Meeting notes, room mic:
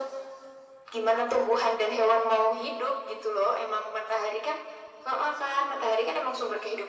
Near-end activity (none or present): none